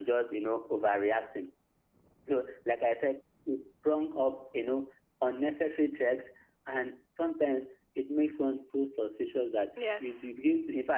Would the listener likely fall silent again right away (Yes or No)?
Yes